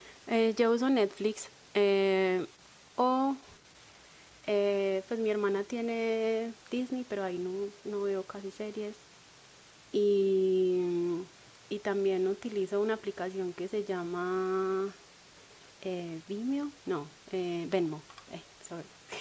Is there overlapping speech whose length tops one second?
No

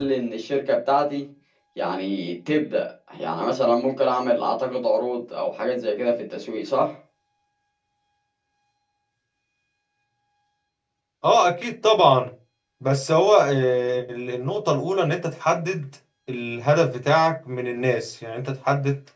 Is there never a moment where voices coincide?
Yes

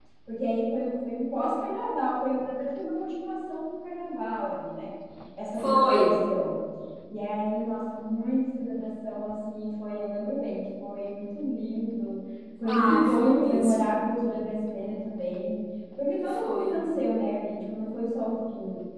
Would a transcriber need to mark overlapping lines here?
Yes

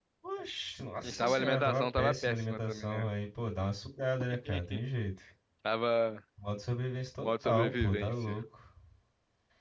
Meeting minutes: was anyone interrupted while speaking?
Yes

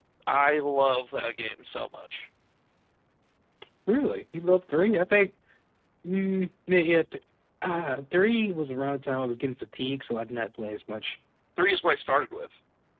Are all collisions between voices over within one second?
Yes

